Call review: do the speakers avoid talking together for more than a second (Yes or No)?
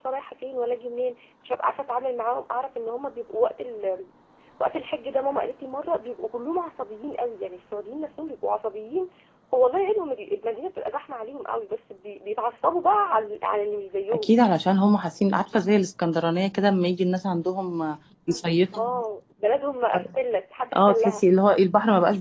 Yes